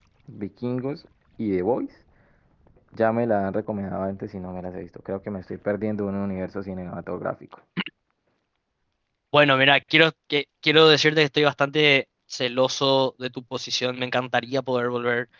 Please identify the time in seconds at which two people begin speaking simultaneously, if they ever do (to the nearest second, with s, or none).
none